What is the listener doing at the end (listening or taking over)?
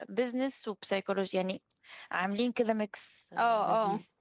taking over